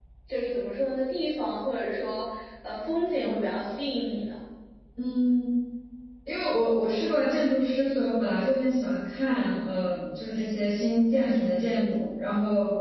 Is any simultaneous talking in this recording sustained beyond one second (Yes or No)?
No